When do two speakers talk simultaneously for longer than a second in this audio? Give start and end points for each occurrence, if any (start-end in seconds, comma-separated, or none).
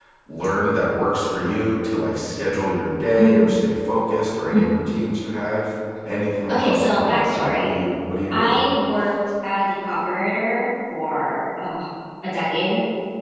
6.5-7.7